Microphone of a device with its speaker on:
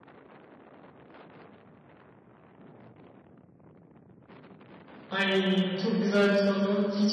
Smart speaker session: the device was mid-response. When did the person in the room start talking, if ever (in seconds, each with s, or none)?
5.1 s